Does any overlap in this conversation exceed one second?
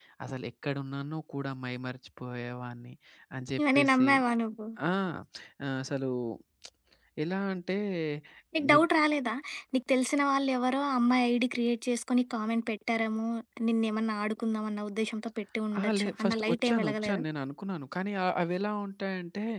Yes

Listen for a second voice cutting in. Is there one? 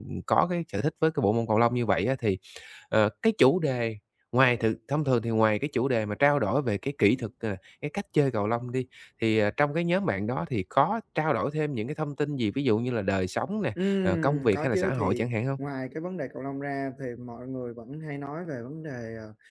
Yes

